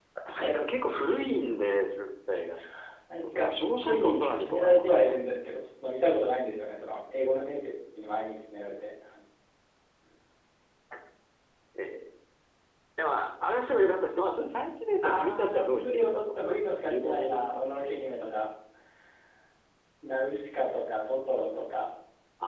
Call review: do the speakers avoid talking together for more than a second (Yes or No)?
No